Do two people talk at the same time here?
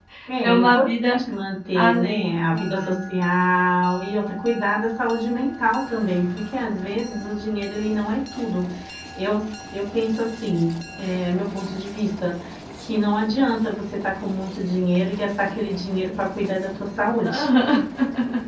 Yes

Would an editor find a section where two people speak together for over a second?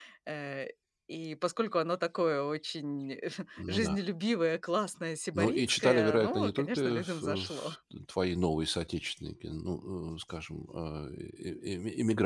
Yes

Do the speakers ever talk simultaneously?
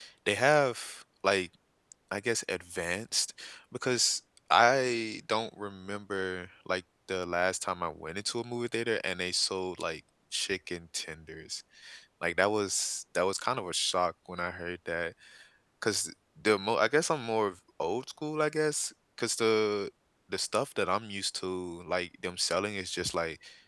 No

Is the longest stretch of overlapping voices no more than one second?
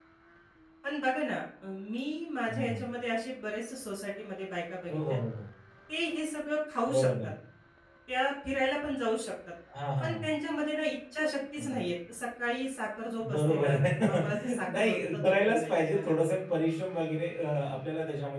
No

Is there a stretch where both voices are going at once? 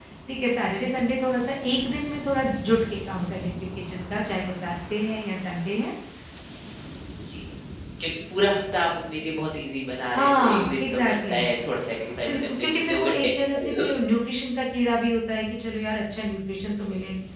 Yes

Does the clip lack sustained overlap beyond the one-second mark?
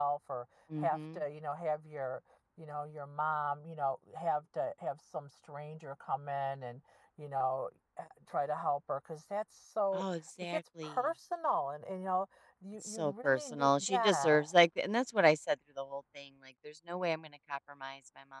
No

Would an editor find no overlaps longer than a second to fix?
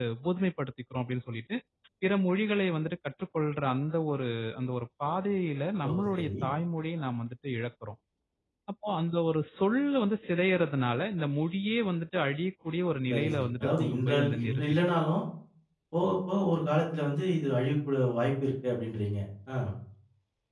No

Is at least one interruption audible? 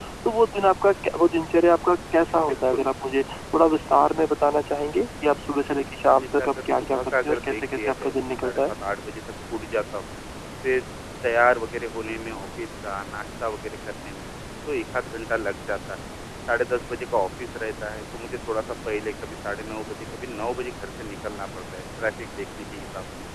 Yes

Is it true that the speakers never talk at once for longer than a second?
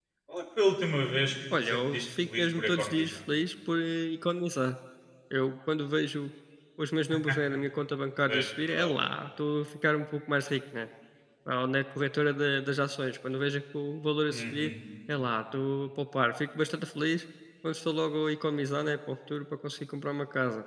No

